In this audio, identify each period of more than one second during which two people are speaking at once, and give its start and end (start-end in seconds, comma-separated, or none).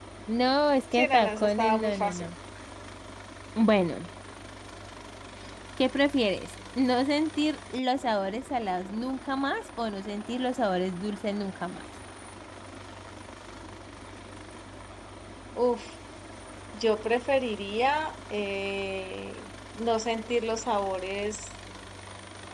0.9-2.3